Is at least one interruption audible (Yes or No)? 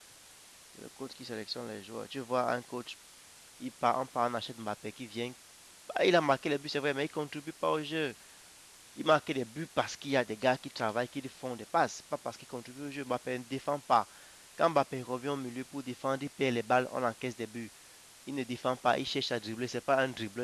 No